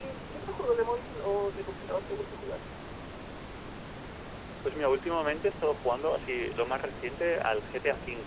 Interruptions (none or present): none